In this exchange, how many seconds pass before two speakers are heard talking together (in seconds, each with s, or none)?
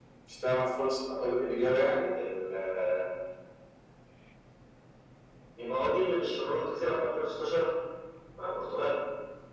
none